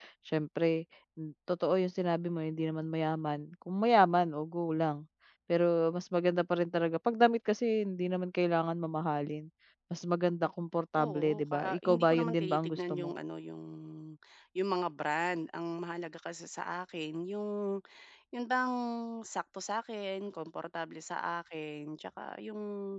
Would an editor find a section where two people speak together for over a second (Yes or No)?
Yes